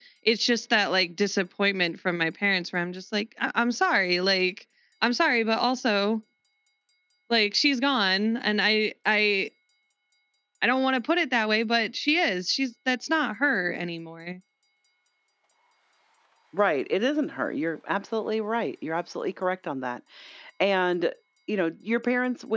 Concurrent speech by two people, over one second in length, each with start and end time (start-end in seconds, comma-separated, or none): none